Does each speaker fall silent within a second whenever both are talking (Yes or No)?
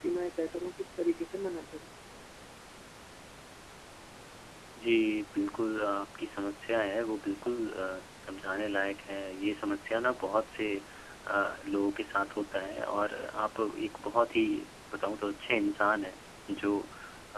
Yes